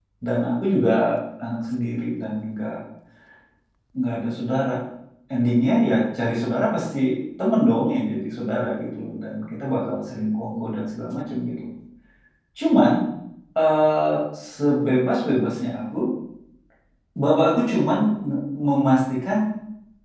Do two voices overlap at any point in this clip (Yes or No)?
No